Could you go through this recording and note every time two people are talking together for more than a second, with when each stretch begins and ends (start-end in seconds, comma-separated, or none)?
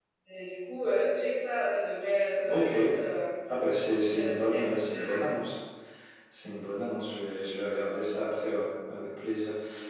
none